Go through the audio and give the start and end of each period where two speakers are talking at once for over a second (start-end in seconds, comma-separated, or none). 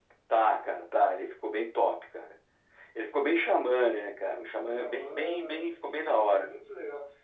4.8-6.4